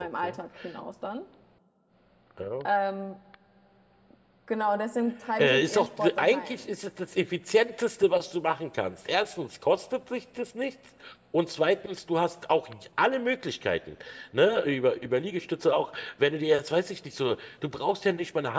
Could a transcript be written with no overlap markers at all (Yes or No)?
No